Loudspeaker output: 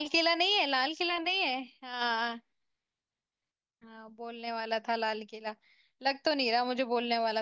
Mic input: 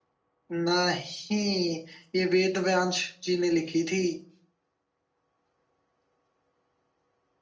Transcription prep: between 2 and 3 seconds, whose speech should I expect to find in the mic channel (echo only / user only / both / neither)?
user only